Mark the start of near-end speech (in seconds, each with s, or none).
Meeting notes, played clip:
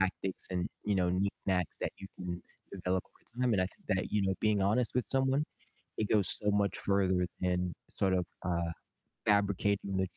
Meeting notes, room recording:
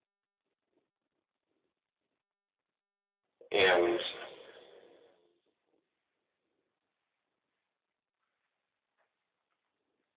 3.5 s